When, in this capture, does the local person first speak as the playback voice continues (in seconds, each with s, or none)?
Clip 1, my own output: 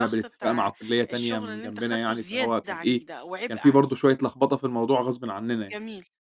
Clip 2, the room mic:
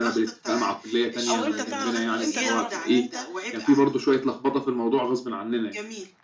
1.3 s